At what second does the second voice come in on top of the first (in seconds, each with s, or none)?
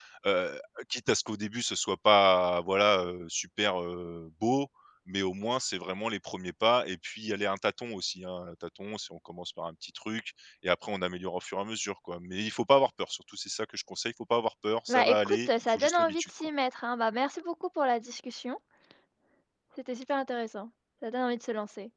14.9 s